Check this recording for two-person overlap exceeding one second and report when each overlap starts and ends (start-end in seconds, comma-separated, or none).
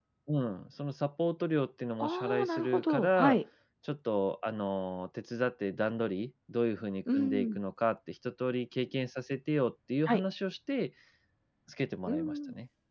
2.0-3.4